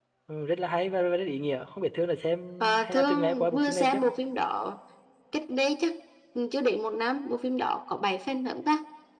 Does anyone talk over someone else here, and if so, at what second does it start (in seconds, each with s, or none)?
2.6 s